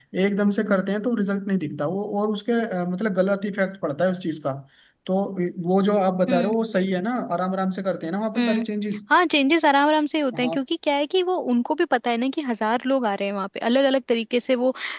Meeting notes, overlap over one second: none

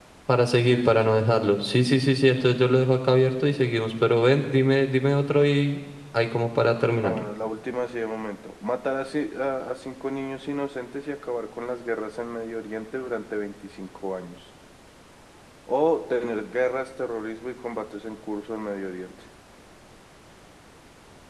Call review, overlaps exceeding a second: none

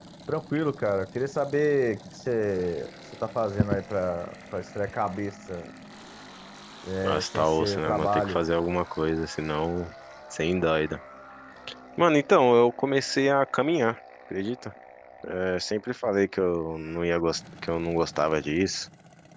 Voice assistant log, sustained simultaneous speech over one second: present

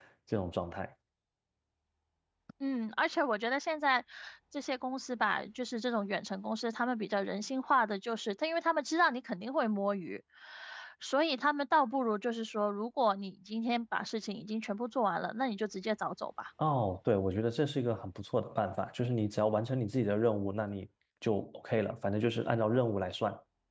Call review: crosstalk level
none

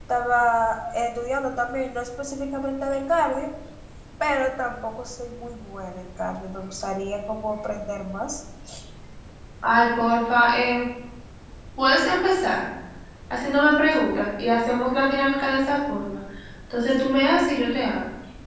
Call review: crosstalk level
none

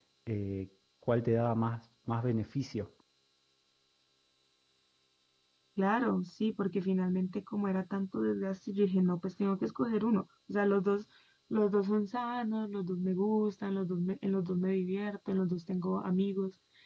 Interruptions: none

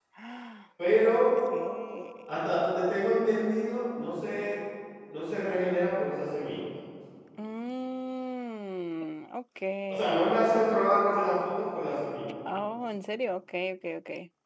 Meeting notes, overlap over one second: none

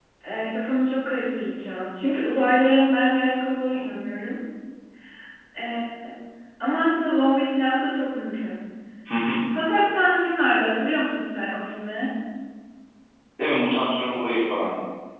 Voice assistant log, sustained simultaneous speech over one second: none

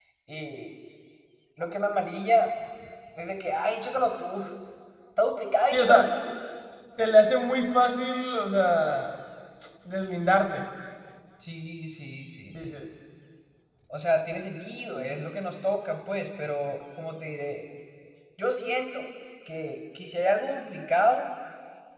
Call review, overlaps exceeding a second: none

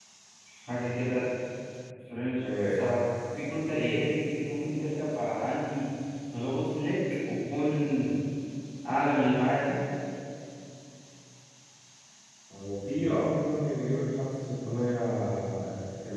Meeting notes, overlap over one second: none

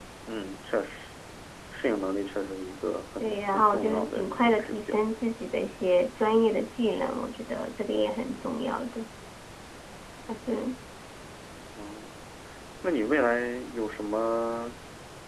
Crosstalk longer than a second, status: present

